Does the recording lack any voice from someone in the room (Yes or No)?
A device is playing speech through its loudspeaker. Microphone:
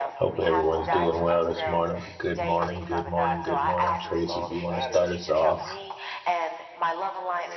No